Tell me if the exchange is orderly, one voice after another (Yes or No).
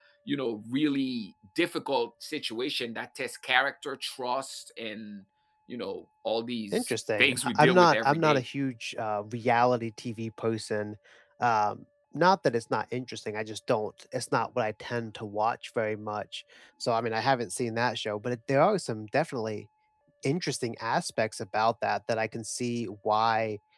No